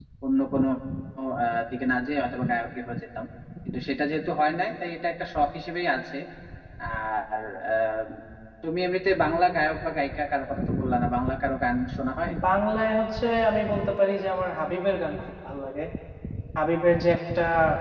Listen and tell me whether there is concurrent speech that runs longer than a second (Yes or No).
No